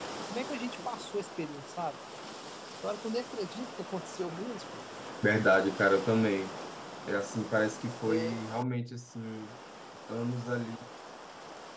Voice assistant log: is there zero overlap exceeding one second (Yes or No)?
Yes